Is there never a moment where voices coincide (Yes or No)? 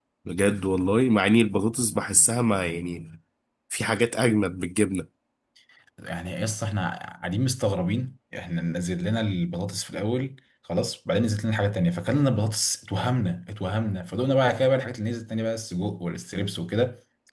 Yes